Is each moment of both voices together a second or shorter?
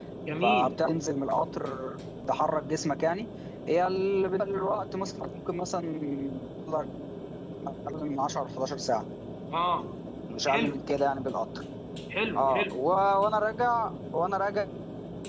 Yes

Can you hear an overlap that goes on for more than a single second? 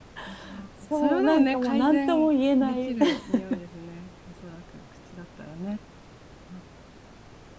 Yes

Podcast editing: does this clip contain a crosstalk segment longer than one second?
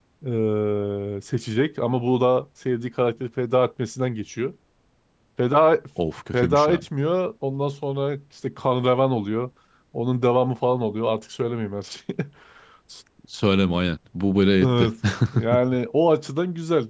No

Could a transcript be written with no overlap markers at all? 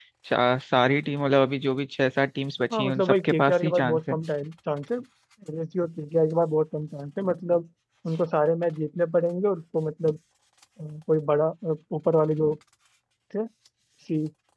No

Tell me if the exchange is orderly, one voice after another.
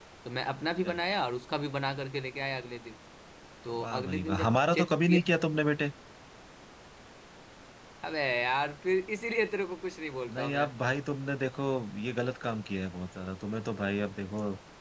No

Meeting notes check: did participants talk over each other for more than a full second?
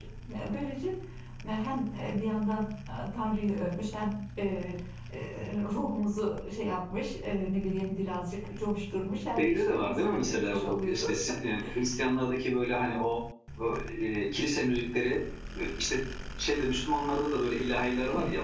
Yes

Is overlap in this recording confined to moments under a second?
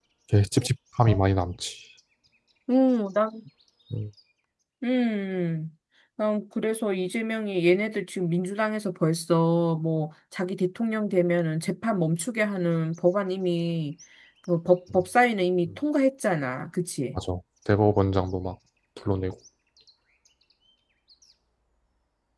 Yes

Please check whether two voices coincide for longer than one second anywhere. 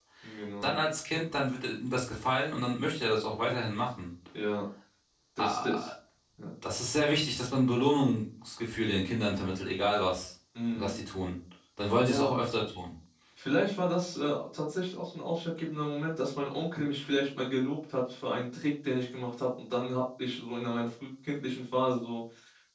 No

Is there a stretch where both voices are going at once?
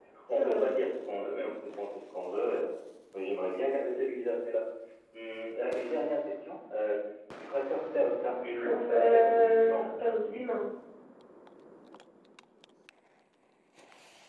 Yes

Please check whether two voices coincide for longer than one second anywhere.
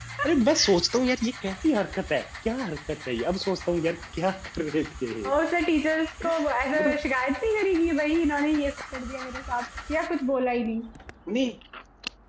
No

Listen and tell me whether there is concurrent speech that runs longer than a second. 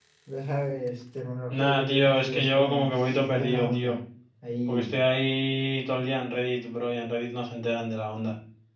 Yes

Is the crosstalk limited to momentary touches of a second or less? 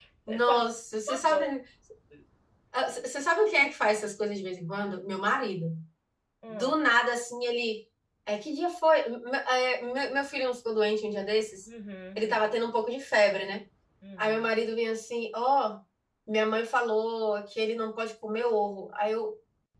Yes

